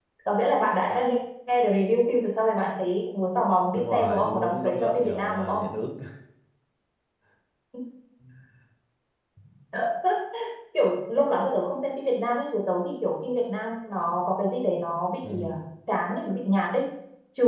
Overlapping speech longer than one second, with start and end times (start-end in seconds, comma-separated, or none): 3.8-5.7